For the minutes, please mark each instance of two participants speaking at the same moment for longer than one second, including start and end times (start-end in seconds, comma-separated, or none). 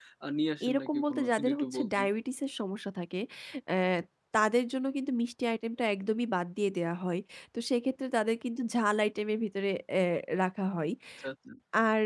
0.7-2.1